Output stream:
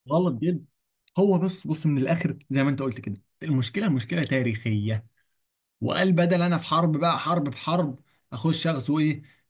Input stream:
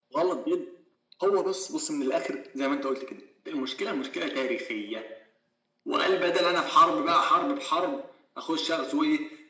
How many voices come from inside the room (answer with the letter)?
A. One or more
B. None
B